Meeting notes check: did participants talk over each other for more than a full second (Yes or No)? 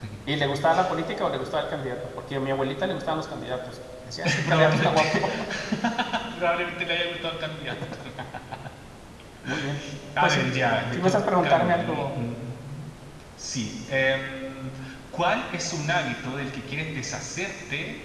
Yes